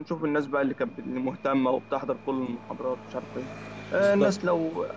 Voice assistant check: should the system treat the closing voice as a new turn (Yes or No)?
No